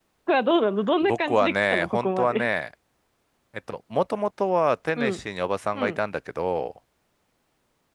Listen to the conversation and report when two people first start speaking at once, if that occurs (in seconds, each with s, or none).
1.0 s